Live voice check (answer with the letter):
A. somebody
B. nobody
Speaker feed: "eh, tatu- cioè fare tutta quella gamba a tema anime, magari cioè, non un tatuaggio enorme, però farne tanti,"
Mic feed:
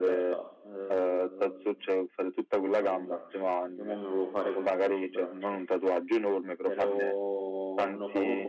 A